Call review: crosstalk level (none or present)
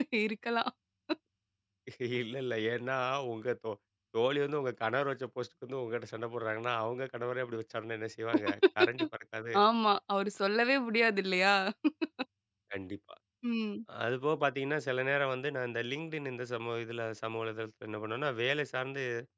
none